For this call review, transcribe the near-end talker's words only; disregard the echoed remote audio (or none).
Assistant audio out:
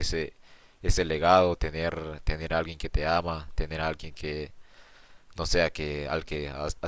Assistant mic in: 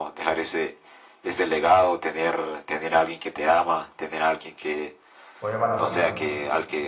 Pues es barato entonces.